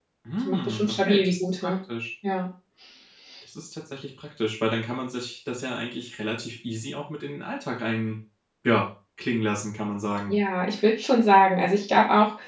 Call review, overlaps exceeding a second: present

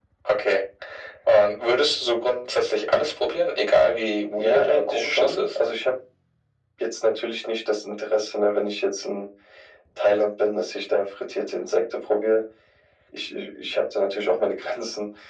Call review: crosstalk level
present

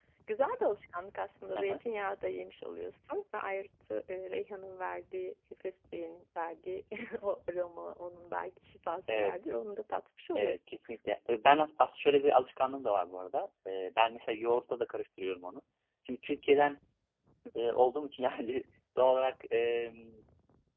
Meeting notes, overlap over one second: none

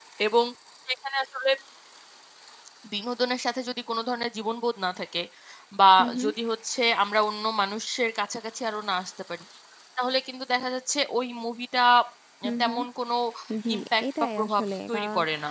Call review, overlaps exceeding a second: present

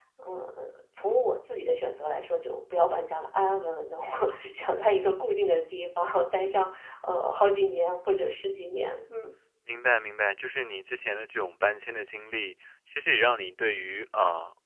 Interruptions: none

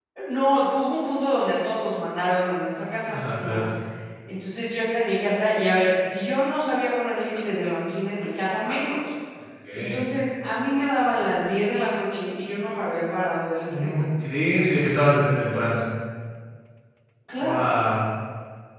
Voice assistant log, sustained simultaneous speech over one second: none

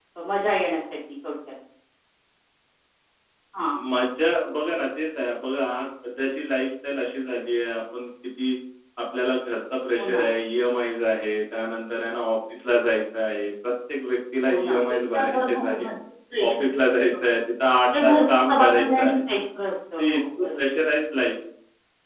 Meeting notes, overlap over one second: present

